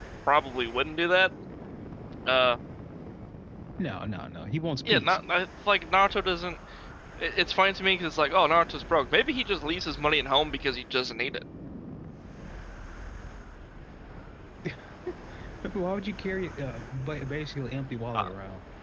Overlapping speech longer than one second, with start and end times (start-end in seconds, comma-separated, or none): none